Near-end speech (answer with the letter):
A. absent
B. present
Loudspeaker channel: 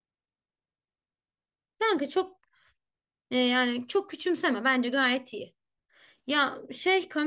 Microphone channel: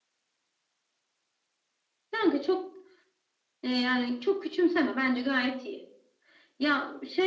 A